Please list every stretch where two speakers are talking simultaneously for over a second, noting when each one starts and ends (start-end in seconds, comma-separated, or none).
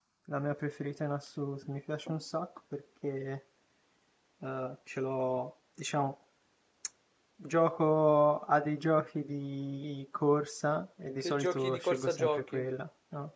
11.2-12.7